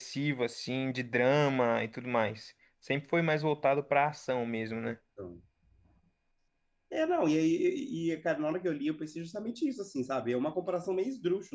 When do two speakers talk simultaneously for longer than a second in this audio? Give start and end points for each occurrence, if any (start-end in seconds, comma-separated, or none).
none